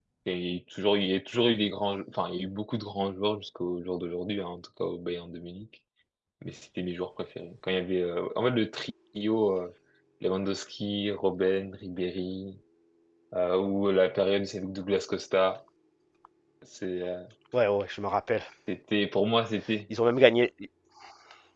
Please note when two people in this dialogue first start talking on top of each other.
none

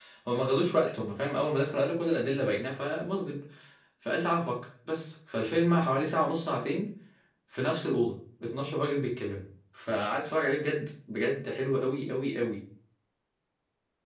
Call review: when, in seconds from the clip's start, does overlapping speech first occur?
none

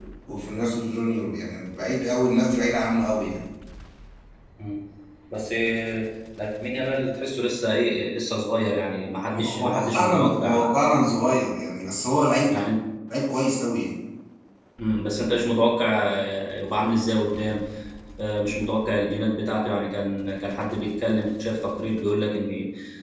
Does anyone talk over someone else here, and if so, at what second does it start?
9.3 s

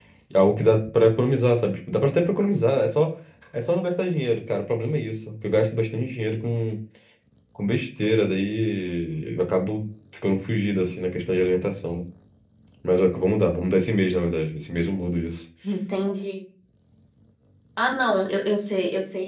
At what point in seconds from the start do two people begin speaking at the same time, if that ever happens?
none

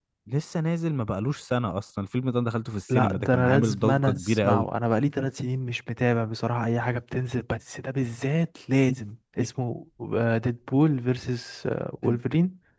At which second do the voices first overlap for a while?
2.9 s

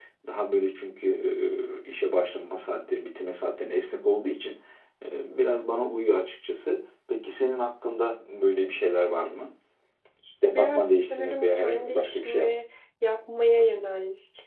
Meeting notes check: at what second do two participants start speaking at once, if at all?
10.4 s

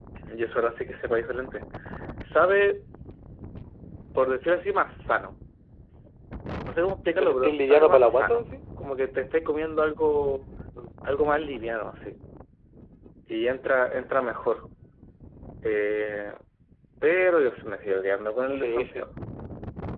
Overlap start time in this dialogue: 7.2 s

